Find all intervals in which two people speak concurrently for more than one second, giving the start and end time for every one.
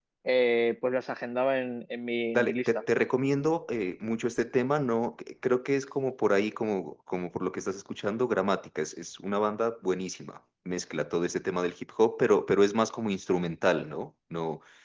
none

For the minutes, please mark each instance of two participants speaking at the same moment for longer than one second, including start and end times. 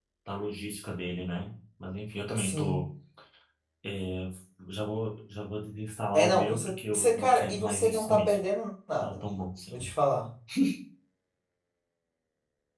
6.1-8.4

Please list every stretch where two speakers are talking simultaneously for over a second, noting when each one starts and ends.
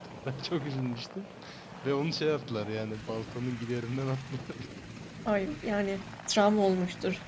none

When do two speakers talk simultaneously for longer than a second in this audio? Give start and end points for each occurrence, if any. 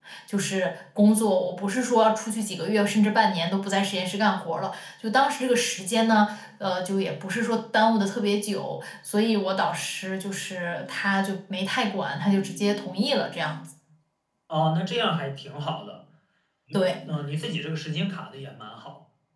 none

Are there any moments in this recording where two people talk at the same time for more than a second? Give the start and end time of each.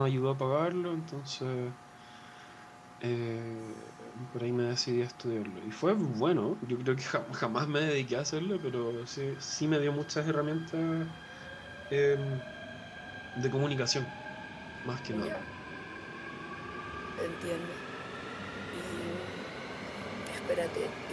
none

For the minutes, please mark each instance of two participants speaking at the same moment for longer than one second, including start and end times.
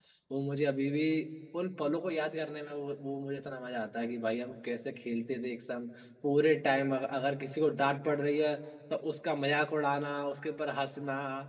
none

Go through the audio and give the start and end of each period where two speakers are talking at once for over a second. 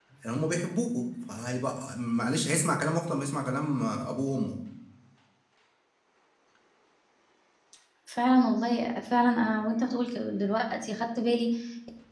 none

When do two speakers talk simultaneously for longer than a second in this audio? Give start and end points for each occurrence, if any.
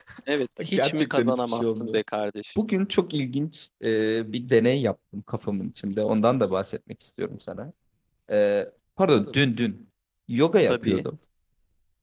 0.7-2.0

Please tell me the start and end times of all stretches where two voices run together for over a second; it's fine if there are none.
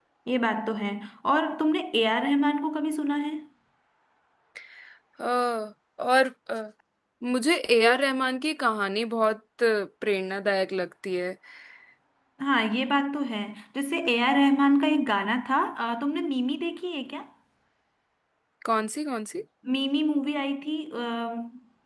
none

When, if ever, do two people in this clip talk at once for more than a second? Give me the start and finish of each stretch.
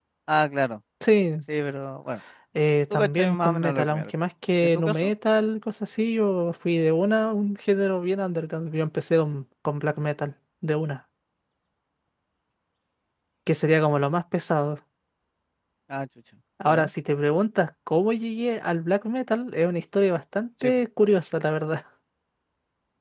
2.9-4.1

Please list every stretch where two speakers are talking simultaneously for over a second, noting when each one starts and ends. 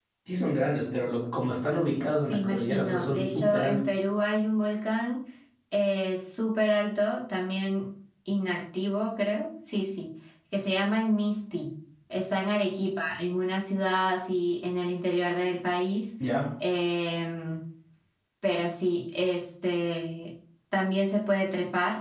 2.2-4.0

